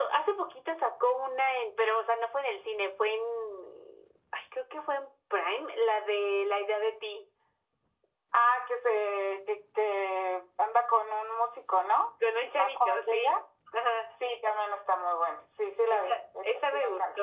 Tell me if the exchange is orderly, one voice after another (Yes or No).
No